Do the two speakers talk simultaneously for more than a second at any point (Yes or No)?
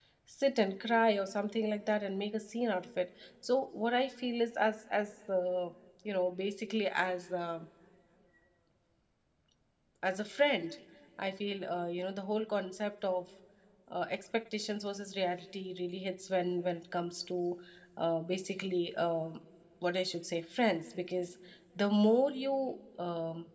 No